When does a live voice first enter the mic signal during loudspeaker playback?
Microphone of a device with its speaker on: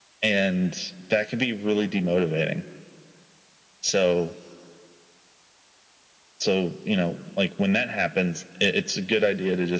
none

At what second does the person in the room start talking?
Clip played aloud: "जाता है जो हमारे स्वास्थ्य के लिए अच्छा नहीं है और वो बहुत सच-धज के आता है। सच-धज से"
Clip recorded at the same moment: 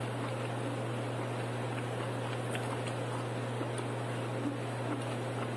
none

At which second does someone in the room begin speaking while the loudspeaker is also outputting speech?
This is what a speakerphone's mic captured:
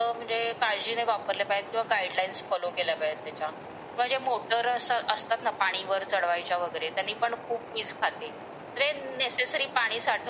none

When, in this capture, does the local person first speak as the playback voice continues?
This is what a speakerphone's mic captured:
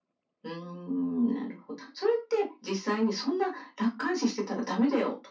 none

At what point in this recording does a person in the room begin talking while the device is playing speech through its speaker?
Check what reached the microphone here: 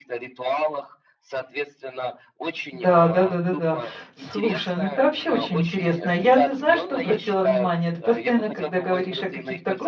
2.7 s

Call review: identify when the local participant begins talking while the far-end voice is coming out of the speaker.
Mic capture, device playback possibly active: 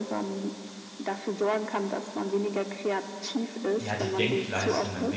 3.8 s

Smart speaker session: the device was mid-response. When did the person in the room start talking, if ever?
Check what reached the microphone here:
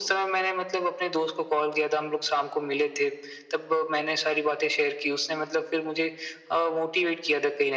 none

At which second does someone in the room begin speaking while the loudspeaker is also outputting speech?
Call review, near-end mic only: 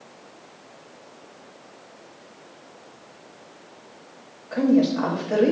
4.5 s

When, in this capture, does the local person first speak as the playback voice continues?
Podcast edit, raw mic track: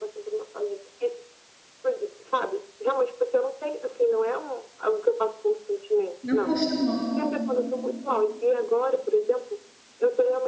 6.2 s

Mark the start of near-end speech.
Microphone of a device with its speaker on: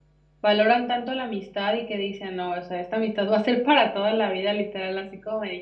0.4 s

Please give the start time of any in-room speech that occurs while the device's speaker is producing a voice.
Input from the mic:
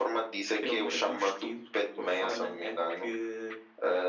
none

